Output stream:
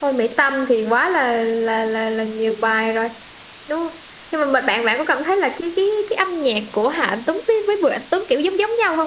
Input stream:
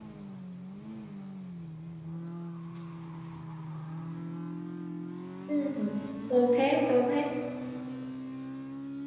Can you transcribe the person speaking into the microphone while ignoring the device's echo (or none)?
Ừ. Tôi thế, tôi thế.